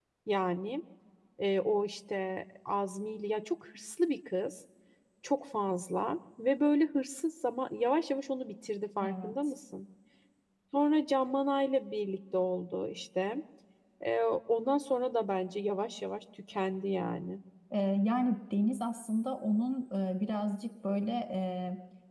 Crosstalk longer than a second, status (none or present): none